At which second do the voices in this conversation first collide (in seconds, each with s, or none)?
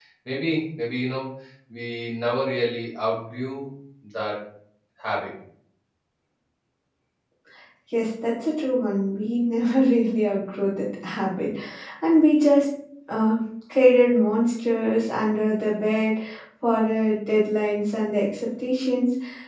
none